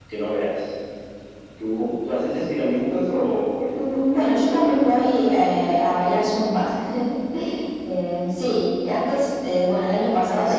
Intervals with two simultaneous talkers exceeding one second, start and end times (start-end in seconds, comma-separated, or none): 3.8-6.0